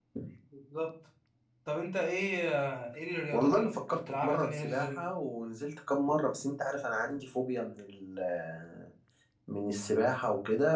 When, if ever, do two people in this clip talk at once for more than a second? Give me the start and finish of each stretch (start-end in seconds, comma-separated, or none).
3.3-5.0